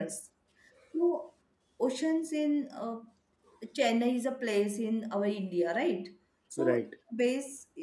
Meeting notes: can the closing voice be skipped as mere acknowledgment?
Yes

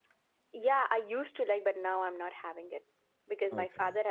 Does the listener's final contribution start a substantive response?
No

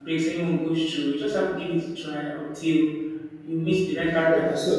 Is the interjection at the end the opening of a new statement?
Yes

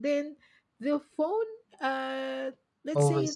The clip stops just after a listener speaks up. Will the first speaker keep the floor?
Yes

